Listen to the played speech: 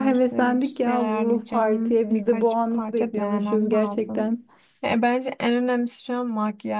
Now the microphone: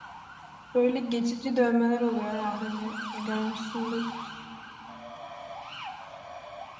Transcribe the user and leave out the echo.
Böyle geçici dövmeler oluyor ya hani e, görmüşsündür.

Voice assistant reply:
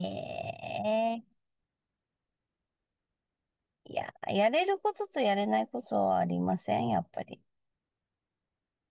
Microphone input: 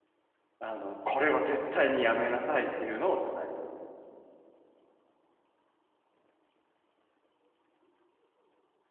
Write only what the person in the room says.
あの、これは絶対にやめなさいっていうのを伝える。

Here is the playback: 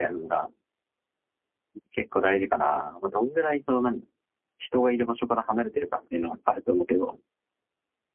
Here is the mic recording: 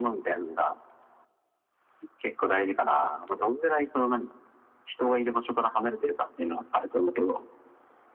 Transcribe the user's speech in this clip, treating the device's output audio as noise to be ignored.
none

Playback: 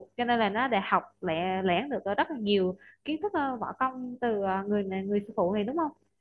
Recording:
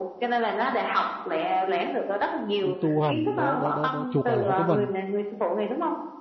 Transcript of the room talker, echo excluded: đi tu hành đỡ đỡ đỡ, đỡ chuộc lại lỗi của mình

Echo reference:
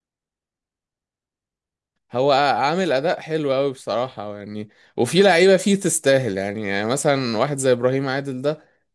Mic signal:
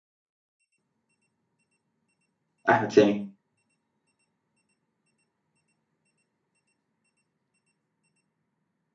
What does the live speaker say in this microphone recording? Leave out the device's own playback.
احمد سامي

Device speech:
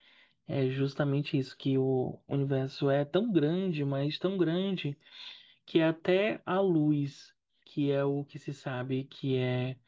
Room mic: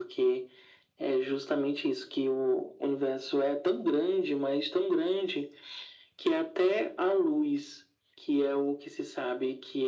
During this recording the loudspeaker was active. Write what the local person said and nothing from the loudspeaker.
none

